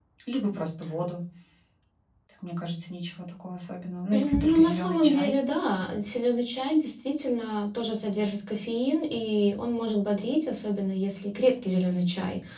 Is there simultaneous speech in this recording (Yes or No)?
Yes